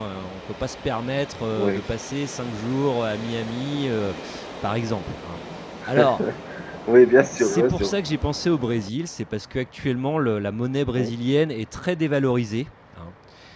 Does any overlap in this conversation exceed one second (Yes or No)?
No